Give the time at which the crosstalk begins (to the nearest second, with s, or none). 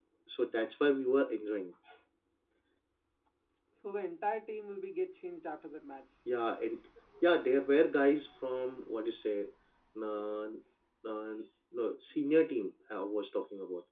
none